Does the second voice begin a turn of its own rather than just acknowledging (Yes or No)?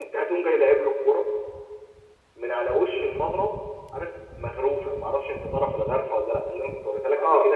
No